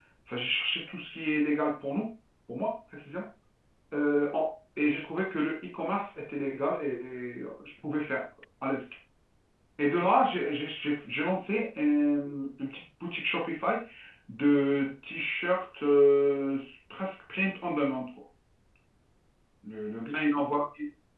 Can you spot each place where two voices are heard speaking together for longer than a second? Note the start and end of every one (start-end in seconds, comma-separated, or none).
none